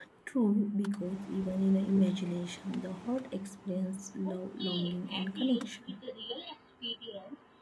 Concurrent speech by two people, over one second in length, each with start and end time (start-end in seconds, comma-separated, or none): 4.2-6.0